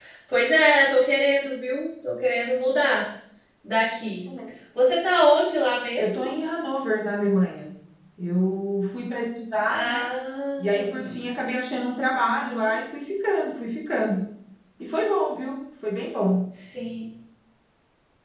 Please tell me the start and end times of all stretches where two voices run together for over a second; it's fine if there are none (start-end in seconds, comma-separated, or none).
none